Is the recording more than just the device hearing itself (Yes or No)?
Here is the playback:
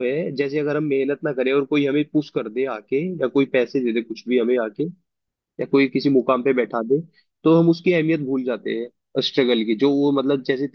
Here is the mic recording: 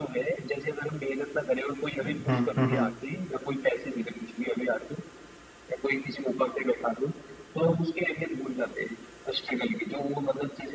Yes